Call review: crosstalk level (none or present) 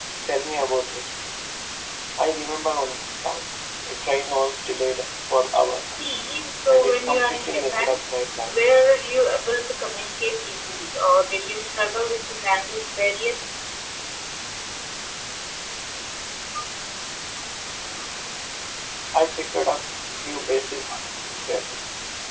present